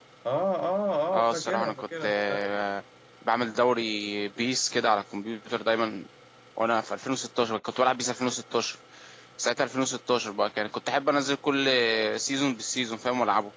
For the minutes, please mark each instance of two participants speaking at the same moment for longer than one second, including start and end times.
1.1-2.4

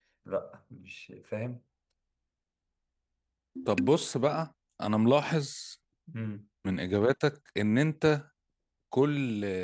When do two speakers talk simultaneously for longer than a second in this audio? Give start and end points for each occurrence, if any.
none

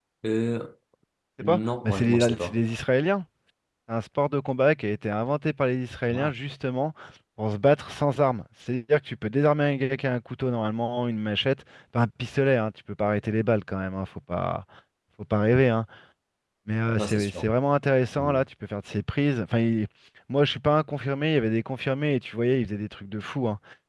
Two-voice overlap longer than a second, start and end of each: 1.4-2.6

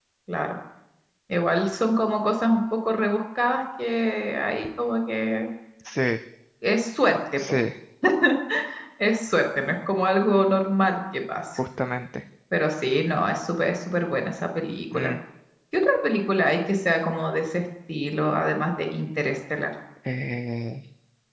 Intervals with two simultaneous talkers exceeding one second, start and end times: none

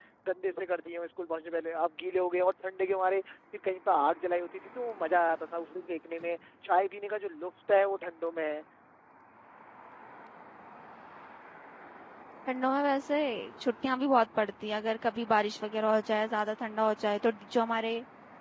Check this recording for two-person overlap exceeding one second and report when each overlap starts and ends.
none

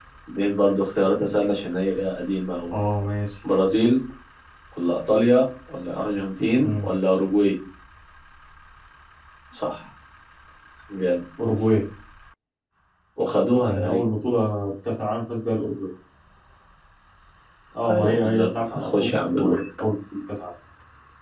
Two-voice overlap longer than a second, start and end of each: 17.9-19.6

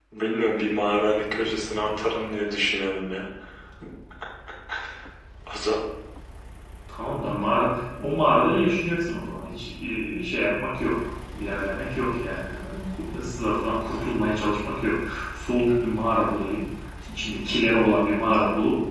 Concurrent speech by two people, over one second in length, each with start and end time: none

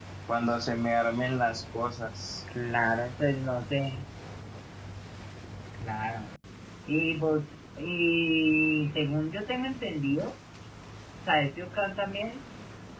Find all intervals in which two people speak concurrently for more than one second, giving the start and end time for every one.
none

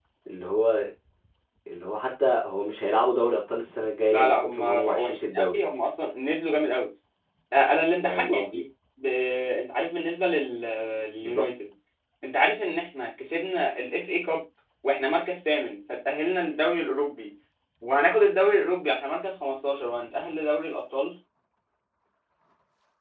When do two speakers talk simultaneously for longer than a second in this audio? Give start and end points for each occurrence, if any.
4.1-5.6

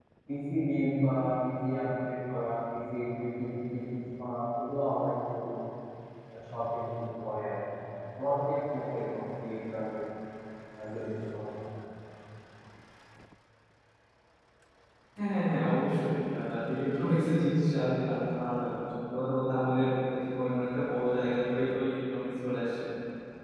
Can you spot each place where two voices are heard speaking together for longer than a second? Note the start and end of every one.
none

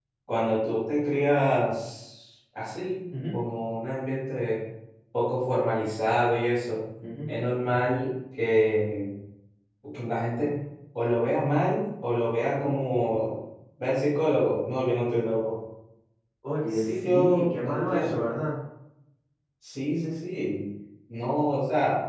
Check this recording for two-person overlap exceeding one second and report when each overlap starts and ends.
16.7-18.2

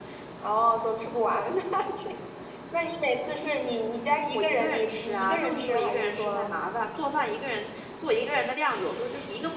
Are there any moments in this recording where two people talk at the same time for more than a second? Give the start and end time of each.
4.3-6.5

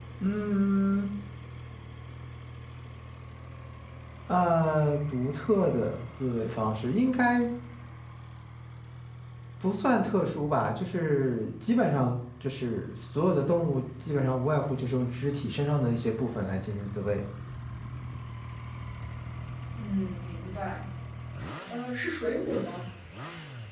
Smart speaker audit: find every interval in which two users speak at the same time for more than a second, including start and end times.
none

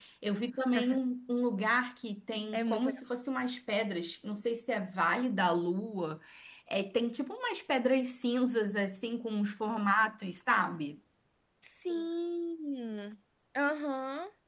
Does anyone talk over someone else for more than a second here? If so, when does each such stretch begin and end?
none

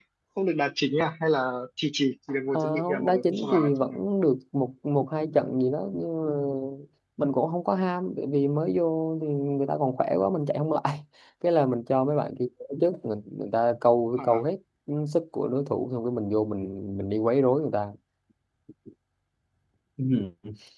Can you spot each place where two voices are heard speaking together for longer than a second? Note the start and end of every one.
2.5-4.0

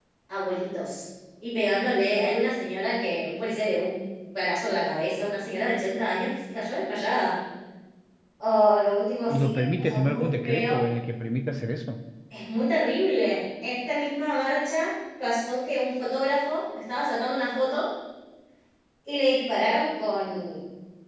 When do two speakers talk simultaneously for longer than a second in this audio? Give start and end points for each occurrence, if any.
9.3-10.7

